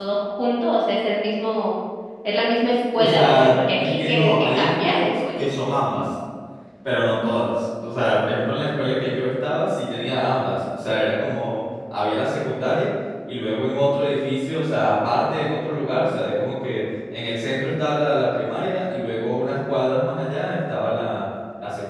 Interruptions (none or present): present